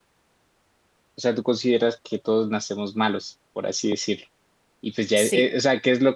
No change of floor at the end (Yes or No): Yes